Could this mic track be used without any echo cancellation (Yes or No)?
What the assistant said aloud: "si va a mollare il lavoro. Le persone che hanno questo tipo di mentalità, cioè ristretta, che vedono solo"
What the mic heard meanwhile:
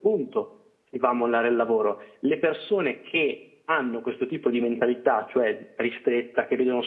No